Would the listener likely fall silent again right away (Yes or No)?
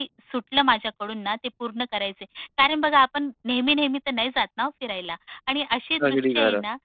Yes